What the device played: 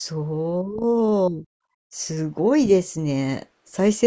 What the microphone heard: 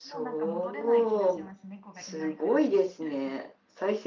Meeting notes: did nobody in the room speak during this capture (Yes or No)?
No